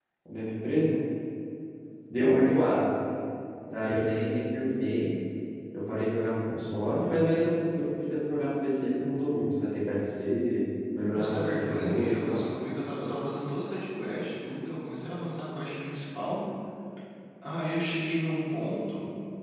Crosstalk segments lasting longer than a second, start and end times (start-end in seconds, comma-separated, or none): 11.1-12.4